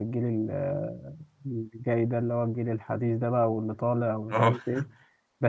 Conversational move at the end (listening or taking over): listening